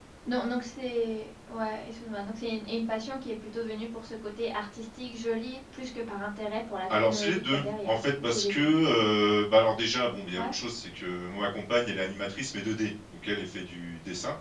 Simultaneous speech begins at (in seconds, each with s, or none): 6.9 s